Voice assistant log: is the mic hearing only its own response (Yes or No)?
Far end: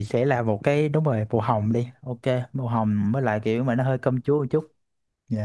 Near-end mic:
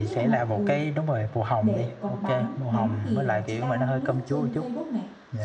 No